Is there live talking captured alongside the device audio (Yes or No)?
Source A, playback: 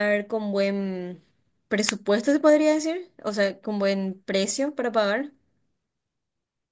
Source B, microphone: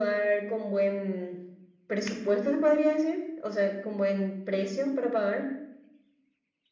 No